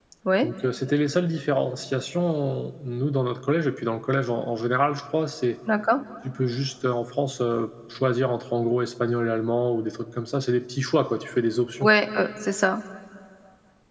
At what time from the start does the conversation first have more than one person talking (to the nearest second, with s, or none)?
none